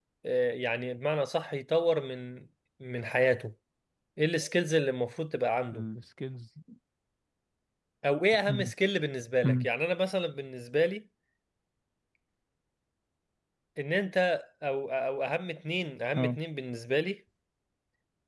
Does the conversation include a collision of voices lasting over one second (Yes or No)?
No